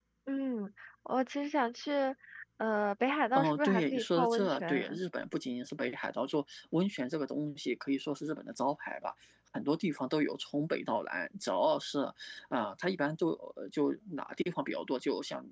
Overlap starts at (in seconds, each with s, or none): 3.4 s